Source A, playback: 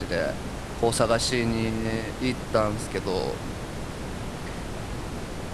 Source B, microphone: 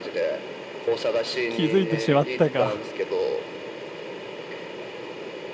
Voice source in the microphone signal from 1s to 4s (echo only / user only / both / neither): both